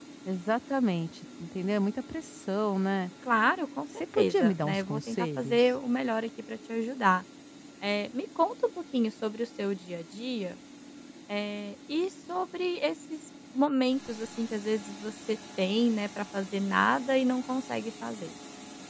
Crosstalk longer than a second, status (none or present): present